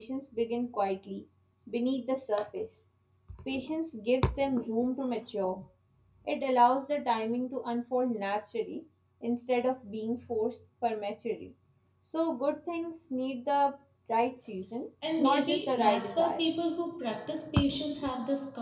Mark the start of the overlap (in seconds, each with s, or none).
15.0 s